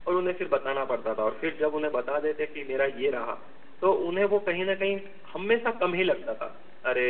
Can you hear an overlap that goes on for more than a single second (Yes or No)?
No